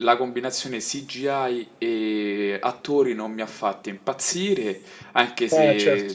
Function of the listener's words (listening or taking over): listening